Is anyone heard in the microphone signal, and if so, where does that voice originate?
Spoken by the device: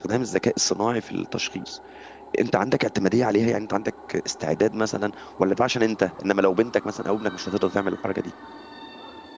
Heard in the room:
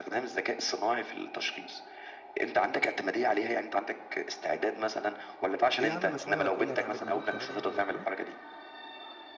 both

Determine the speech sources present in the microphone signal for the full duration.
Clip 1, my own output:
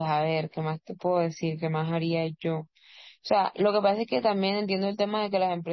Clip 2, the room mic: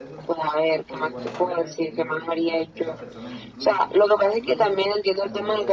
both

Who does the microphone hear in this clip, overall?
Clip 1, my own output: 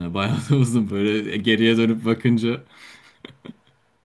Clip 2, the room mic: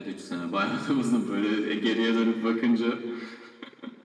echo only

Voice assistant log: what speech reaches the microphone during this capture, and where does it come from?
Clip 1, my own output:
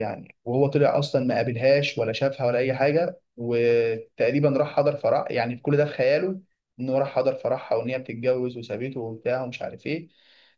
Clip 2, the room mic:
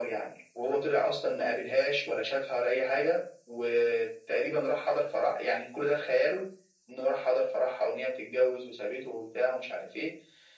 echo only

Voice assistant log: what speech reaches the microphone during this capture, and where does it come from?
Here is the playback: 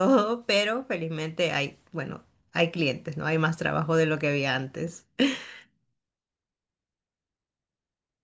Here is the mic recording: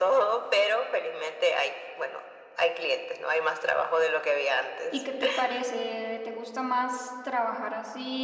both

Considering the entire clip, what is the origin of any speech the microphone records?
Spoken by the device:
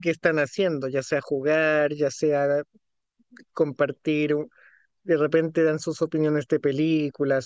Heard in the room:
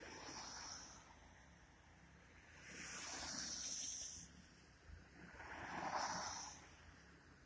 neither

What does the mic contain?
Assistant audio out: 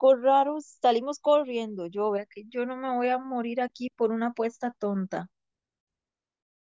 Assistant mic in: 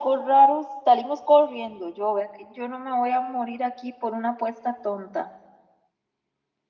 echo only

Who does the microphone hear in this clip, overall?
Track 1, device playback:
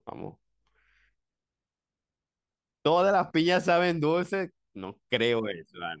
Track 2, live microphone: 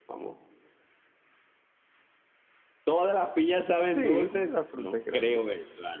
both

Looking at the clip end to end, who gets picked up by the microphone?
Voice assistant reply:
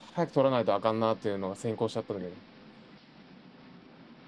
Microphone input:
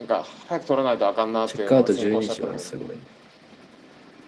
both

